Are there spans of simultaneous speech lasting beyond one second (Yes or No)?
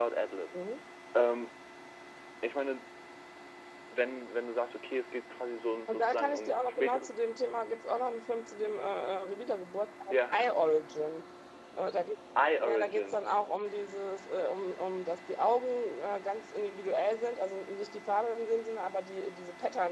Yes